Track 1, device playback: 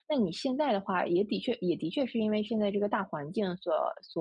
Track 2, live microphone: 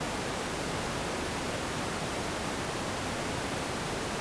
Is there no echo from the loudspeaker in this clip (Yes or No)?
Yes